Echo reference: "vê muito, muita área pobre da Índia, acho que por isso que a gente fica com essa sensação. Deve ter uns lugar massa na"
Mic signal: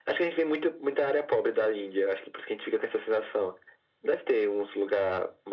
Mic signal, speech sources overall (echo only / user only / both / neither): echo only